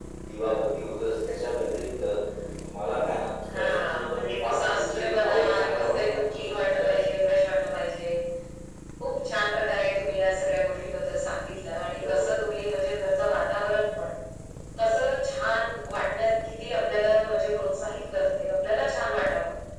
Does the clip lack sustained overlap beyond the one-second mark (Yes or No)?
No